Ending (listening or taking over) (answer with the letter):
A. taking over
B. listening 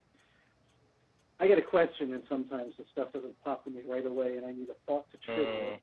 A